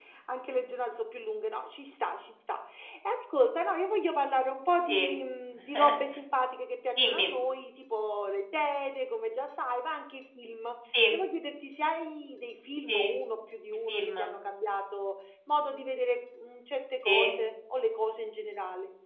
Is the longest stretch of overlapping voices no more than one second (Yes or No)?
Yes